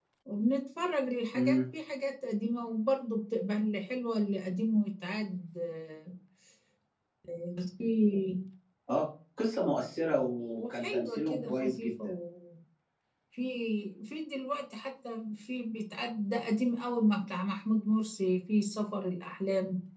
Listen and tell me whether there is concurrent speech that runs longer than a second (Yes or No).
Yes